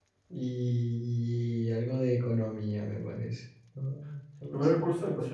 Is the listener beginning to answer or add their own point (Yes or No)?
Yes